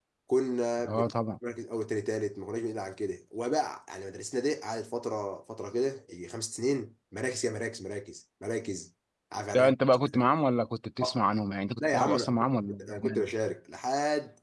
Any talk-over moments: Yes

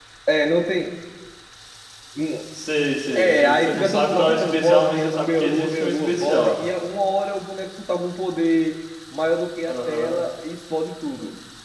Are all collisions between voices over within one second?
No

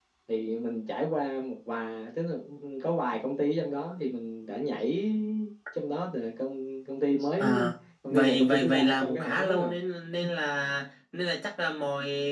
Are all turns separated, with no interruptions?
No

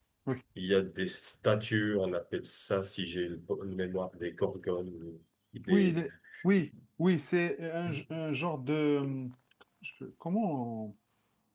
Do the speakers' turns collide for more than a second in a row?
No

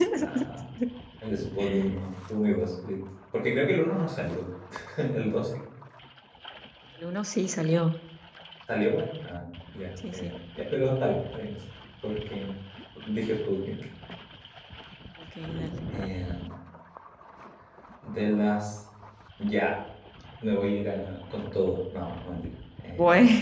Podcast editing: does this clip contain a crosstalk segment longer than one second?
No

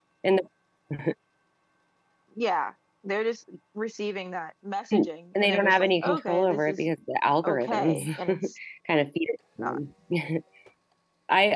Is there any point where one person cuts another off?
Yes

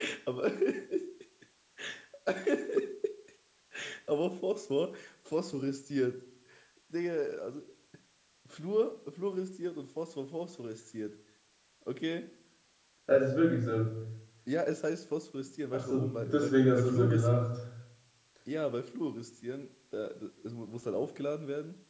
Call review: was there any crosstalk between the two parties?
Yes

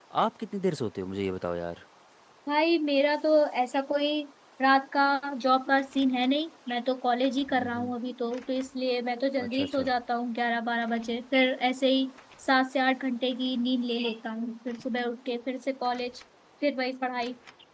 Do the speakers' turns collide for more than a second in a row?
No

